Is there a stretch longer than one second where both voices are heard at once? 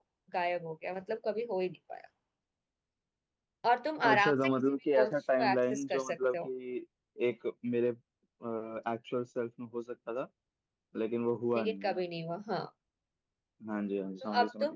Yes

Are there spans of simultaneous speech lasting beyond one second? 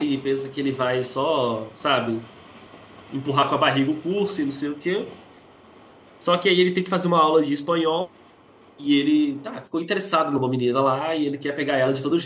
No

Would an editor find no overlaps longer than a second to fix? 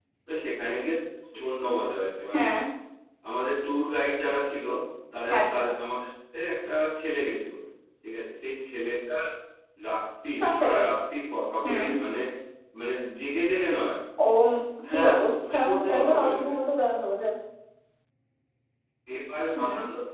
No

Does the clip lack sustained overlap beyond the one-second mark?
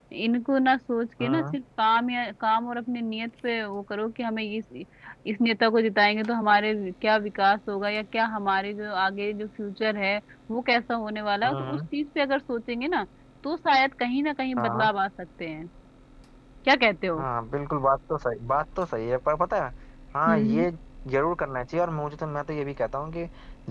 Yes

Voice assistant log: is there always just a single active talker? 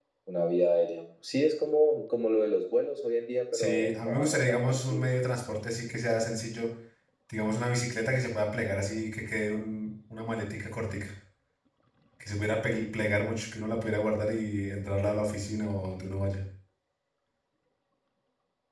No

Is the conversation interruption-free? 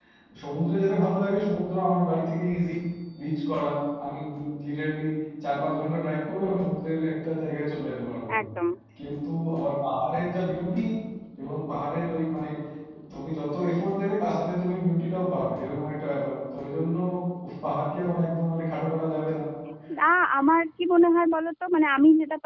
Yes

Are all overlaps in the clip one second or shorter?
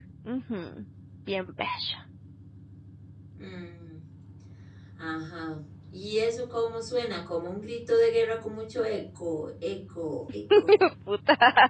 Yes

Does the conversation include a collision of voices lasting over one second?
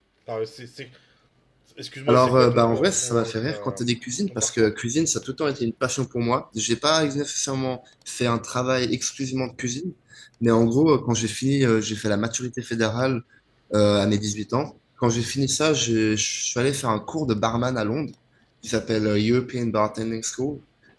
Yes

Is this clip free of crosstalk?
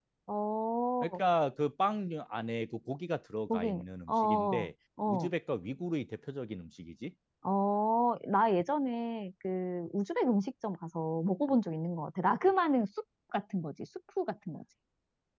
No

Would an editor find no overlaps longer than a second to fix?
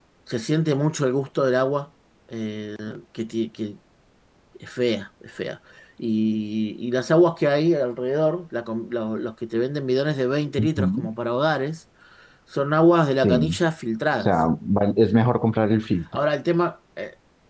Yes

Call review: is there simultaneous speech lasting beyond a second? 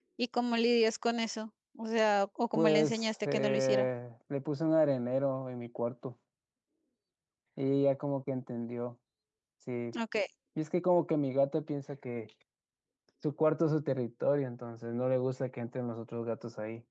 Yes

